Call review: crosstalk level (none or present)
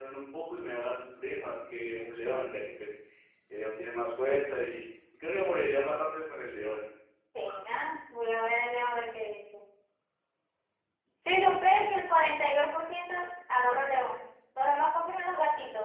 none